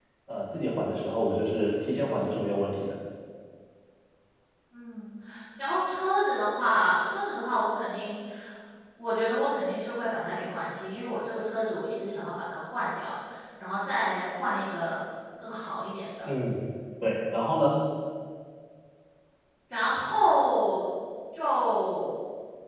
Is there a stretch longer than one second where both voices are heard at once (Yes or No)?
No